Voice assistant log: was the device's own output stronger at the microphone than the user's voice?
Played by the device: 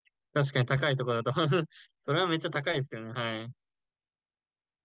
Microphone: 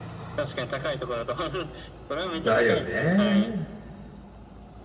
No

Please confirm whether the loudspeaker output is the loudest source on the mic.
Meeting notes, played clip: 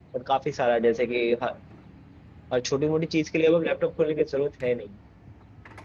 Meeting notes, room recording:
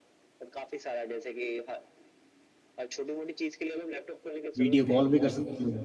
No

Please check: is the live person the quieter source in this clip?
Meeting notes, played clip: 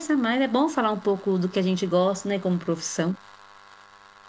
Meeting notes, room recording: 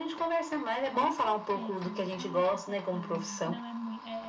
Yes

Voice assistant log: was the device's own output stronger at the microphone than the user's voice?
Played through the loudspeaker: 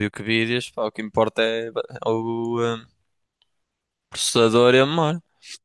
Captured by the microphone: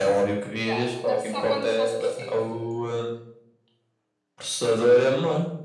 Yes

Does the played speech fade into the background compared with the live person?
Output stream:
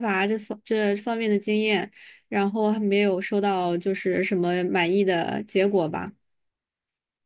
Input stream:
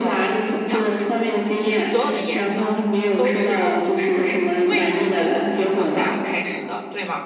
No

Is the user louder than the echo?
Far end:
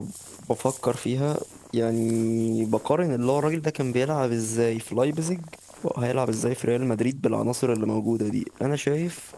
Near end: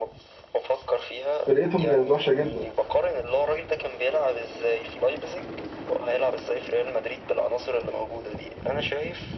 Yes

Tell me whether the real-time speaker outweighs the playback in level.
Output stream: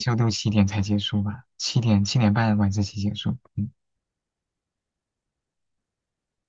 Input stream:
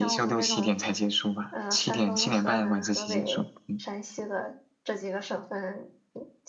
No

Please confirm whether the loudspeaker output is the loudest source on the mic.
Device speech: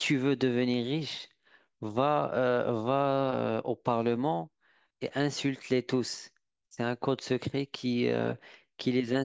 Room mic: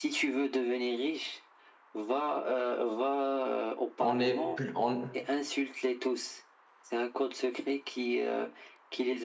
No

